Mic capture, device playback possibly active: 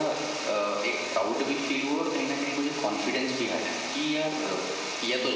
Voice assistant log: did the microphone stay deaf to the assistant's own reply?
No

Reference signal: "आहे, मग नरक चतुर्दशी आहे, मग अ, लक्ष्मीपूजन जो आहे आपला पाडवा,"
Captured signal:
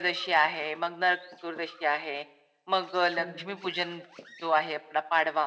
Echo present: Yes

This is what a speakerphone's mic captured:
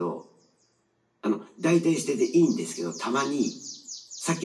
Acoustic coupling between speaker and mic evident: Yes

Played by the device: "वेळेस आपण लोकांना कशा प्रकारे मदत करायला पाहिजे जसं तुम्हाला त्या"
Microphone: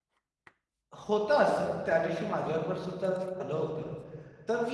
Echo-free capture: Yes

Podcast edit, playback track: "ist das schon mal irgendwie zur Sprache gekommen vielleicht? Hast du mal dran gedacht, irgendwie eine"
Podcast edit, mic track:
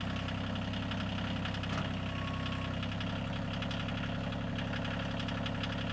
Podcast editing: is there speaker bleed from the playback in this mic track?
No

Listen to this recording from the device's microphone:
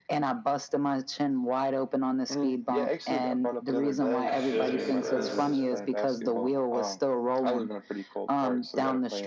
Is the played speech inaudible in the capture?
No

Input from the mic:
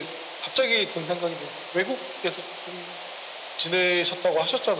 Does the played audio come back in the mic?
Yes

